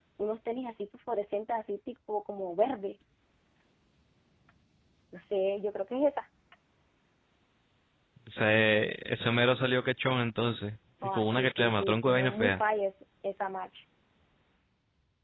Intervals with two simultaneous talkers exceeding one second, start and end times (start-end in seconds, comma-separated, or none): 11.0-12.6